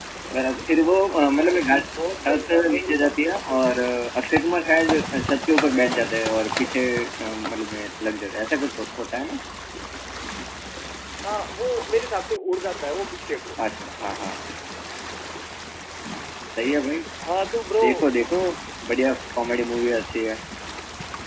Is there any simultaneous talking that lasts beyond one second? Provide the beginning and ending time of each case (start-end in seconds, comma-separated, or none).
2.3-3.9